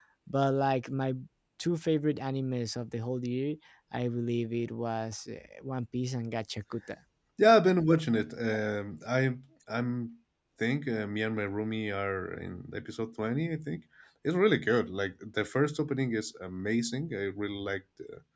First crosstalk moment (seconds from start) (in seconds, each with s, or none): none